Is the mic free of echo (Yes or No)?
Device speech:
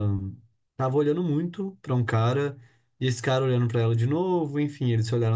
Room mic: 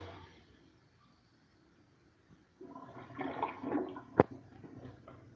Yes